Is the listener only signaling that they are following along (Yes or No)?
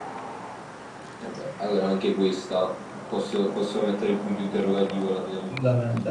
No